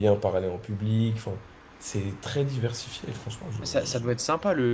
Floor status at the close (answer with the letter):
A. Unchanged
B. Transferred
B